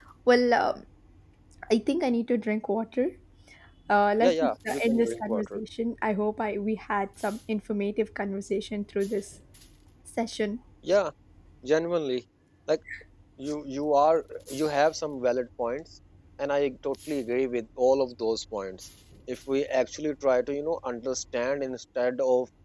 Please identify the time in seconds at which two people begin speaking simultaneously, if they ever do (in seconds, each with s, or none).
4.2 s